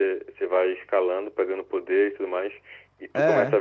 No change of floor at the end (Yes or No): Yes